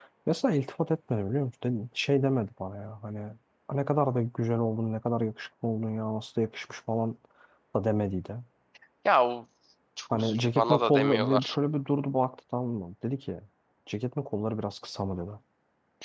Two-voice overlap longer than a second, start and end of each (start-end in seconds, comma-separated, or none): 10.1-11.6